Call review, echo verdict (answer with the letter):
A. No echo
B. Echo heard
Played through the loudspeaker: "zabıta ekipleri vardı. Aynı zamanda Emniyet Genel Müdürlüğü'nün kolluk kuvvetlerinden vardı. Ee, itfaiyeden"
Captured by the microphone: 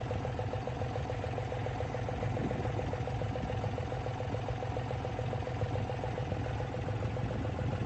A